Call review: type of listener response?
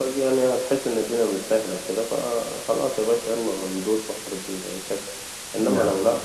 listening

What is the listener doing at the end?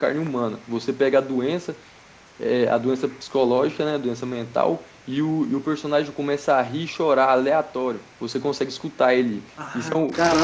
taking over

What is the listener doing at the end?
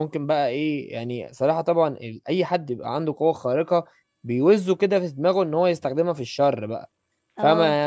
listening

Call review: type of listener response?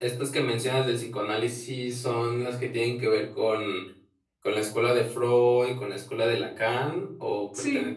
taking over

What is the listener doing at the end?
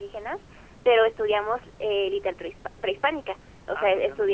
listening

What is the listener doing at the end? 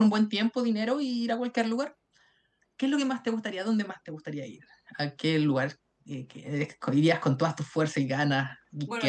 taking over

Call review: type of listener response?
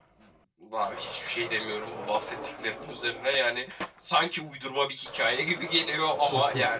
taking over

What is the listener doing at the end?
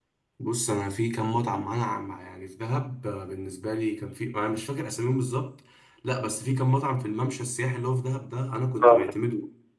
listening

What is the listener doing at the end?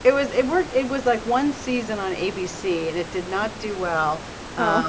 listening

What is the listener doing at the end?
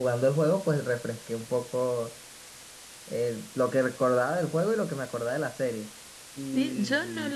taking over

